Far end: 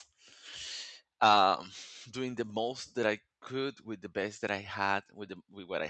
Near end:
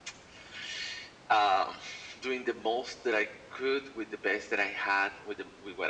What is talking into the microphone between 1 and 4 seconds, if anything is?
echo only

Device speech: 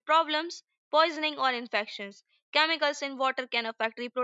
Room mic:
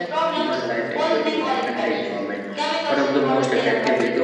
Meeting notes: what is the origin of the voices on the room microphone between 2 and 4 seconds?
both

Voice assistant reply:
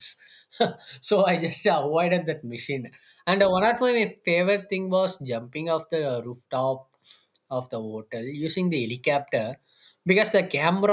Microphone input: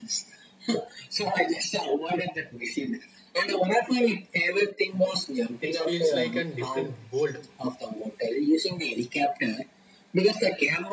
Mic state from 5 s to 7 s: both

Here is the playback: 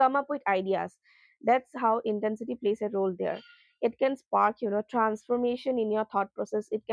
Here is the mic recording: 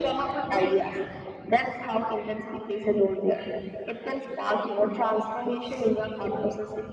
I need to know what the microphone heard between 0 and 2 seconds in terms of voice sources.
echo only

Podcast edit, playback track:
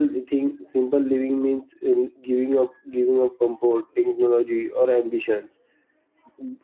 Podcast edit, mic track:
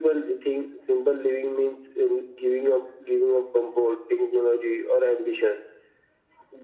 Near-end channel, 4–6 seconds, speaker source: echo only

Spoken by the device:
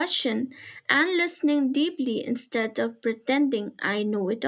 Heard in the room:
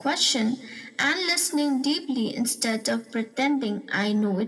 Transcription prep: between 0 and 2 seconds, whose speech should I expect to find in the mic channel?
echo only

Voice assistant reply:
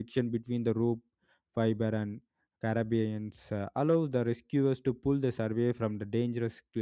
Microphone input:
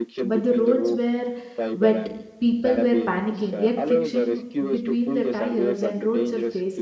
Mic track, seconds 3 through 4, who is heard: both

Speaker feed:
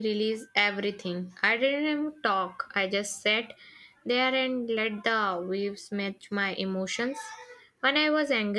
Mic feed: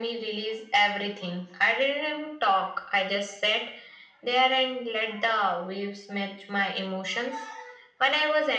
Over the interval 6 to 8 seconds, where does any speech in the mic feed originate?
echo only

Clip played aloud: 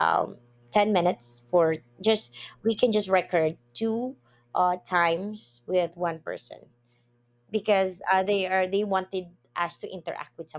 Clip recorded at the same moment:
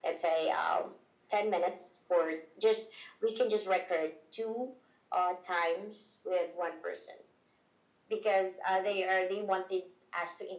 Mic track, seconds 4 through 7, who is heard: echo only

